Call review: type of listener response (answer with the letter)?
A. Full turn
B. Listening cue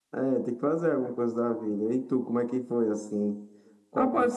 A